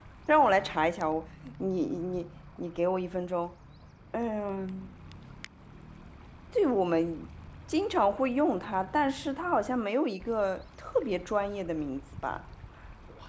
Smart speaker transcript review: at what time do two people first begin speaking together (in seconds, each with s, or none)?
none